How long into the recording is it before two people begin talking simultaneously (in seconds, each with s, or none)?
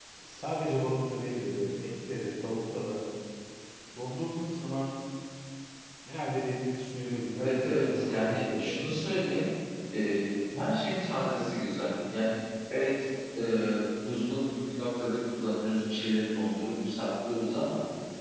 7.3 s